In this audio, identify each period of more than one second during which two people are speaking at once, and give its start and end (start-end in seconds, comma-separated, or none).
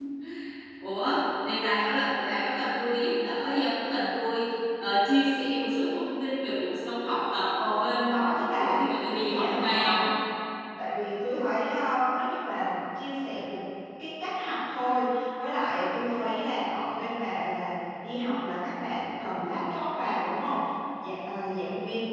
7.7-10.1